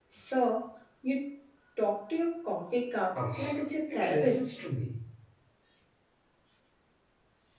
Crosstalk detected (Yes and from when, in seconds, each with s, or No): Yes, from 3.1 s